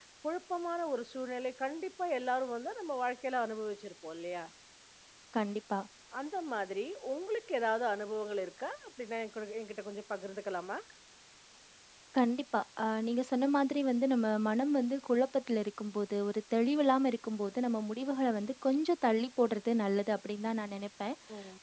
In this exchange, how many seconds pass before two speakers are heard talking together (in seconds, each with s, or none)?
none